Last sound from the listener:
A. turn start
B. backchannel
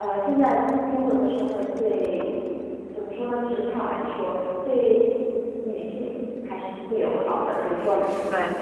B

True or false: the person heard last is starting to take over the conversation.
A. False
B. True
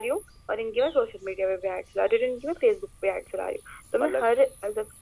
A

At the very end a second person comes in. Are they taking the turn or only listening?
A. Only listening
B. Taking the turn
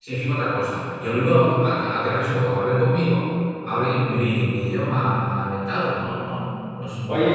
B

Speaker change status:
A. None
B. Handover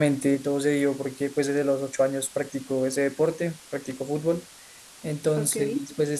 A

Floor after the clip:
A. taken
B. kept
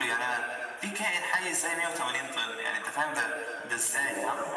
A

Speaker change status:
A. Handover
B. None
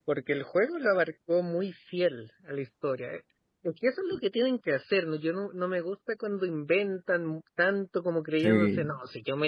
B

